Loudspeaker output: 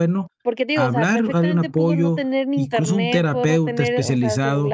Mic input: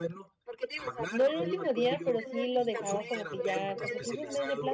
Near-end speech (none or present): present